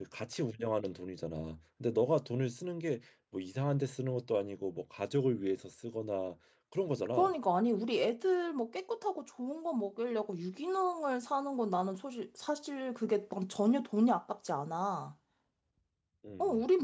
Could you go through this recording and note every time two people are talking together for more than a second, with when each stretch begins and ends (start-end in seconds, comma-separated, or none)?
none